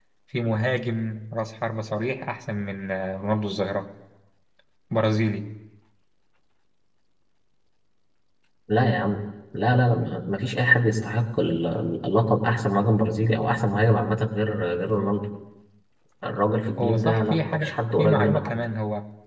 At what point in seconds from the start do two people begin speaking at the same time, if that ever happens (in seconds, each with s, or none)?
16.8 s